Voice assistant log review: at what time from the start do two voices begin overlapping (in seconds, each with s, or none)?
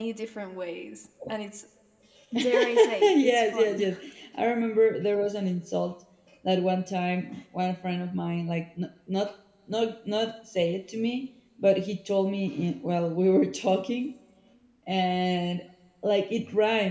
2.4 s